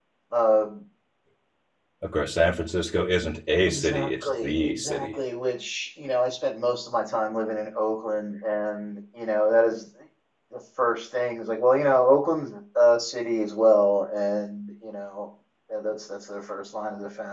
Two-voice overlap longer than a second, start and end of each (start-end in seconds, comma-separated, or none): 3.7-5.2